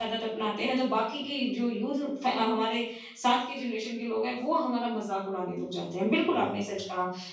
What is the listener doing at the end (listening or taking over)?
listening